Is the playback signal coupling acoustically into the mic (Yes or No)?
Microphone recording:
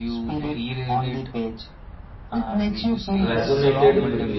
Yes